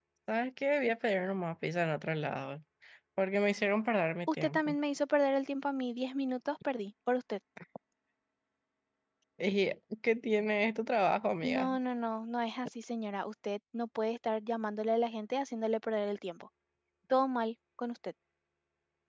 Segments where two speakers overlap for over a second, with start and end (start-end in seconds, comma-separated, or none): none